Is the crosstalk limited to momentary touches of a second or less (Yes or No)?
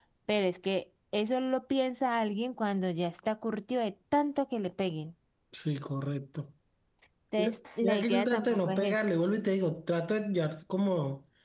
No